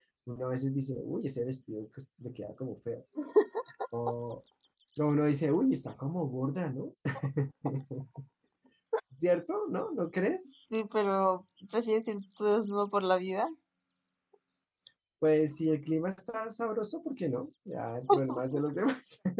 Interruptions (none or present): none